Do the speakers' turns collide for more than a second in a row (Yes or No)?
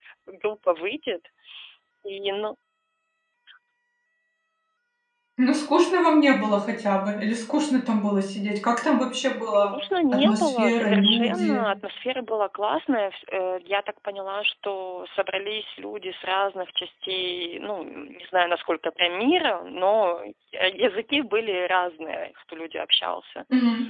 Yes